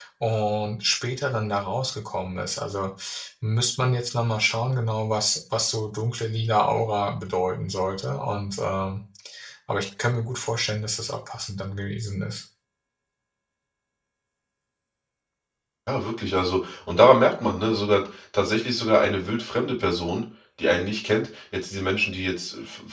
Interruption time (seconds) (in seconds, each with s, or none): none